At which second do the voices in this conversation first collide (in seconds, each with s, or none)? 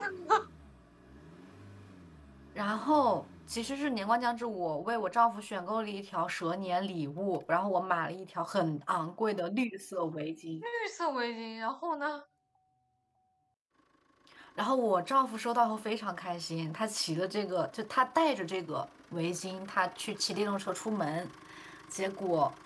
none